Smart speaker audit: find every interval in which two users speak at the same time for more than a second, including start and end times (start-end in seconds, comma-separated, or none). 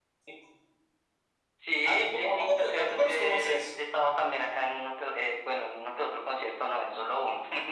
1.8-3.6